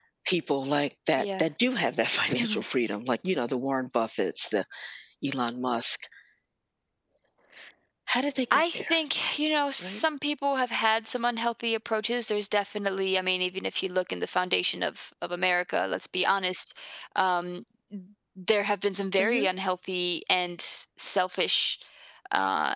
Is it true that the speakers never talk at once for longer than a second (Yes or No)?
Yes